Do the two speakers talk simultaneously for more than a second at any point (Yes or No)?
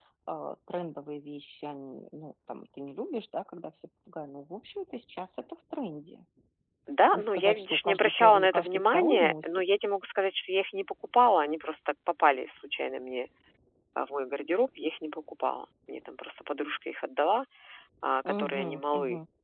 Yes